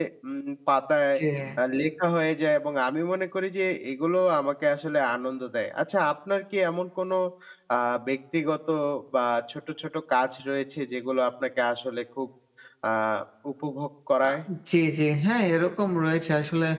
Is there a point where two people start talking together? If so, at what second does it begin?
none

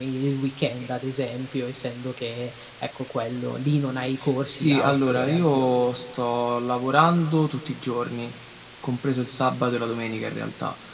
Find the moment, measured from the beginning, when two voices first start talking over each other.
4 s

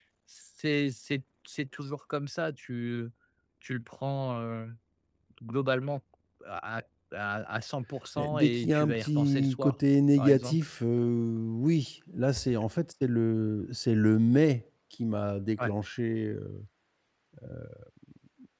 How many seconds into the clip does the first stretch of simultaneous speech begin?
8 s

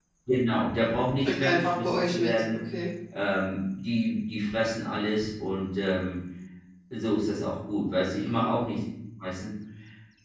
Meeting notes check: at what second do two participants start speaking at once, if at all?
1 s

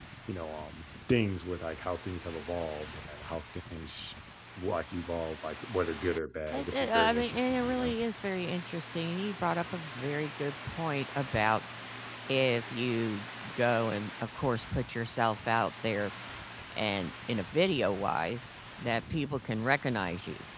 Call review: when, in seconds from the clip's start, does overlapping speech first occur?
7 s

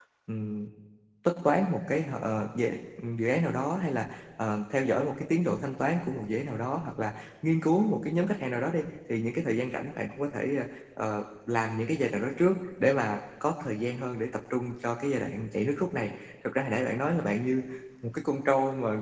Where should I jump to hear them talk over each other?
none

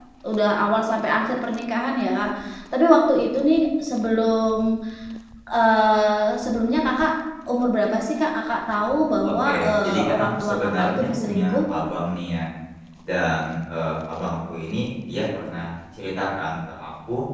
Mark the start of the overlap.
9 s

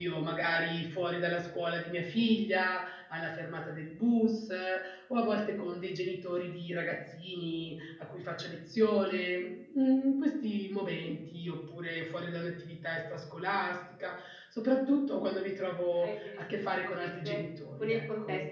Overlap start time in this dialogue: 16 s

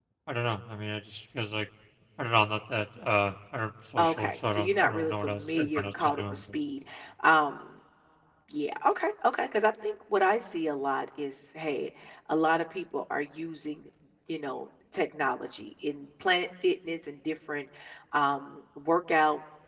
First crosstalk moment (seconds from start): 4 s

